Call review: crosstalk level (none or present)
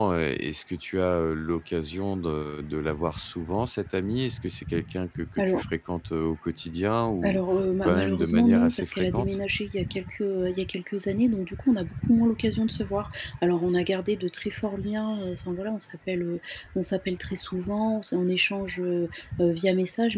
present